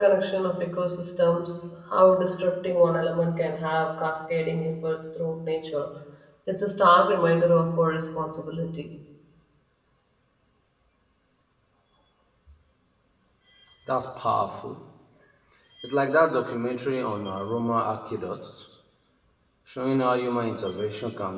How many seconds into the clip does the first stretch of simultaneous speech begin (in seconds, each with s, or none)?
none